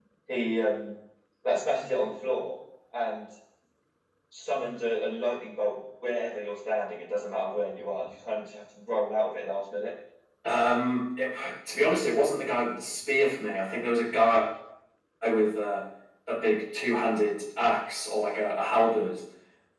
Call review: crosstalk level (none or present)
none